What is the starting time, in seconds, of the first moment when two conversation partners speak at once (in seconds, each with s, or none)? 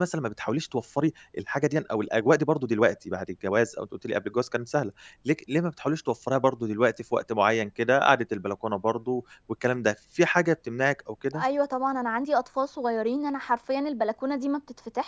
none